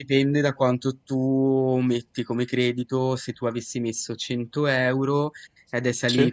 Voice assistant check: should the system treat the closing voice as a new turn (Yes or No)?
No